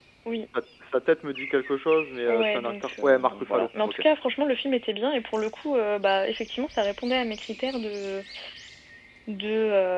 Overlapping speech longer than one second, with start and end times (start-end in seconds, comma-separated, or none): 2.3-4.0